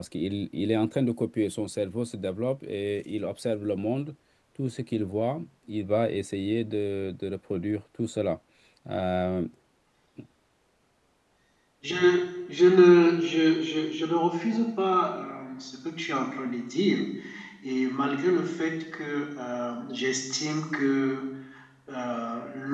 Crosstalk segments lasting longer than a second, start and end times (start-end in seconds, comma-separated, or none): none